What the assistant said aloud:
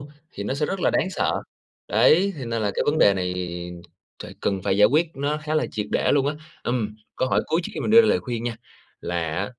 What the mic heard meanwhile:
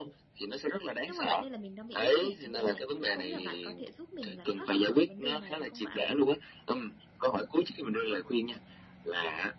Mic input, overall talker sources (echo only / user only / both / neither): both